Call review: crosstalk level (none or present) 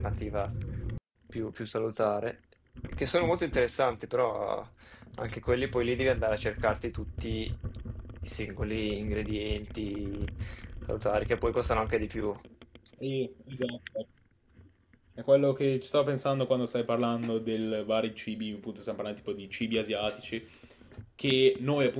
none